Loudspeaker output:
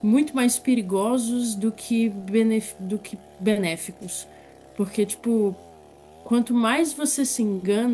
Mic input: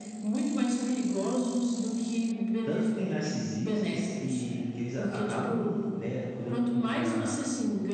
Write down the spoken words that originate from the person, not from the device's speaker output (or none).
Tanto que tem narcisistas que, que eles a- acabam, né, cuidando muito da,